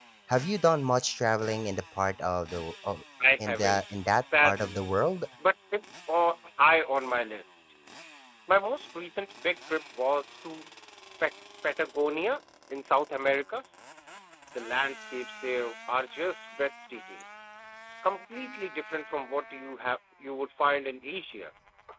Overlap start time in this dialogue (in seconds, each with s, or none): 3.4 s